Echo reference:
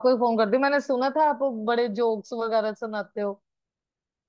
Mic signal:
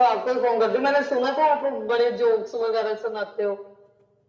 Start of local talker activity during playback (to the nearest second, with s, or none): none